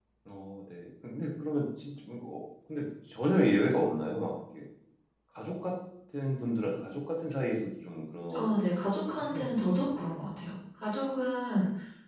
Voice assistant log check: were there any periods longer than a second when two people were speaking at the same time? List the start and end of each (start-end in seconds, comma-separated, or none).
8.4-10.0